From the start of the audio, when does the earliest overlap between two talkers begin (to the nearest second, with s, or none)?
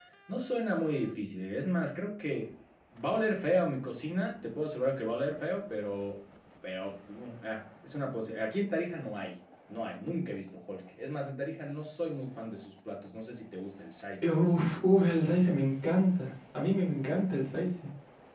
none